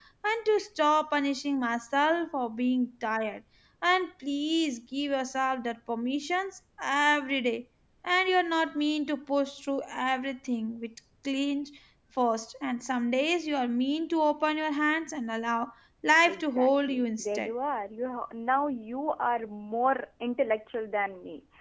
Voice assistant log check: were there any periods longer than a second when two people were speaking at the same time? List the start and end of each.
16.2-17.5

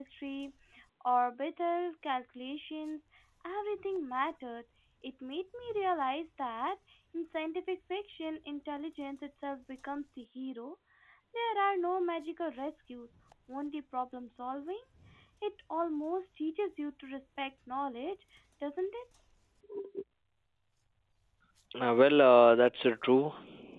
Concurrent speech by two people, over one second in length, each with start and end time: none

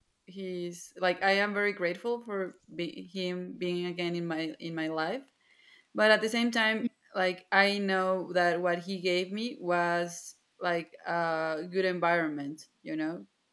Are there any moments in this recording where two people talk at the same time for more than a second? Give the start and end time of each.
none

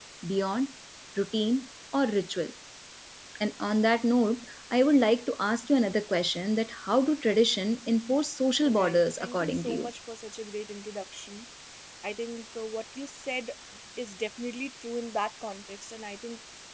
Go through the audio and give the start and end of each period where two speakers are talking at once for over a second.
8.7-9.9

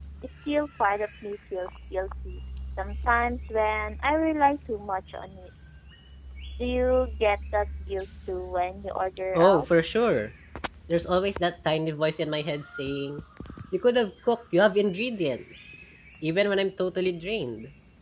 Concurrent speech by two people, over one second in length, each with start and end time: none

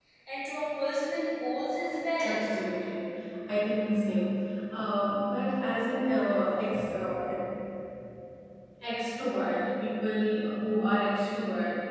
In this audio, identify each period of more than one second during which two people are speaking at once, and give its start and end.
none

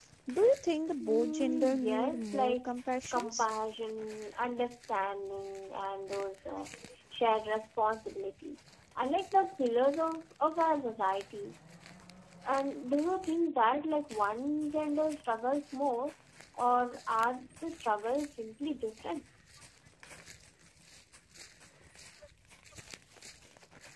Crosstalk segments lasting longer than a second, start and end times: 1.0-2.7

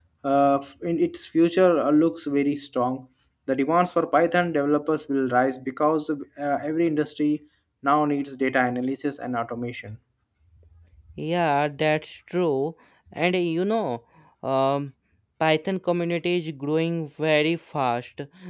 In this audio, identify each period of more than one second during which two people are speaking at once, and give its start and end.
none

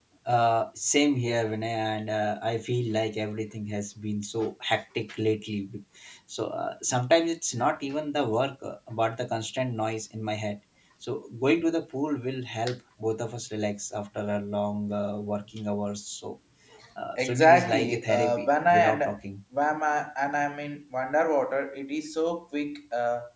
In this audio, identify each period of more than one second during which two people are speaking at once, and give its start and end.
17.2-19.0

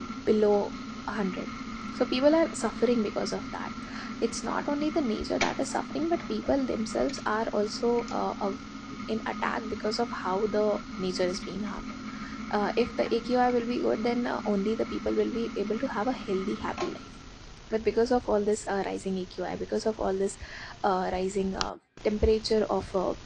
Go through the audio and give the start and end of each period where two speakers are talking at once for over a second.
none

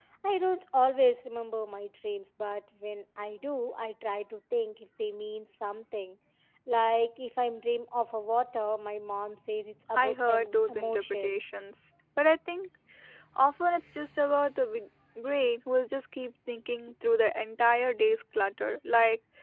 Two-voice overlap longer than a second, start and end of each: 9.9-11.4

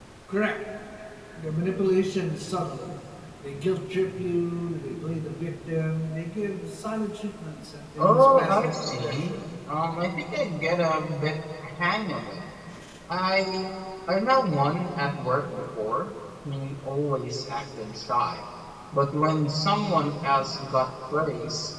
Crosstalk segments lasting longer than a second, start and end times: 8.0-9.3

